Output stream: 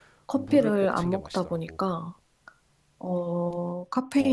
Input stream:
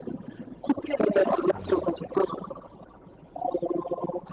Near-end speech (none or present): present